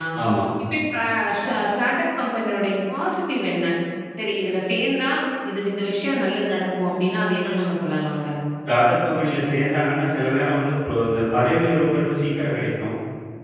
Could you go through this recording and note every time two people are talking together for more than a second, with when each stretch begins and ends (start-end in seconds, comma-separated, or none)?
none